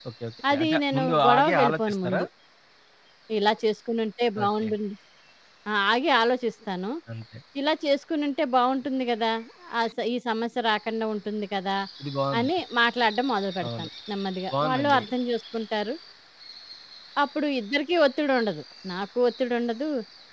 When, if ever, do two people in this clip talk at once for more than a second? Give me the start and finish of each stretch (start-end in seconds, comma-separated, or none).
0.5-2.2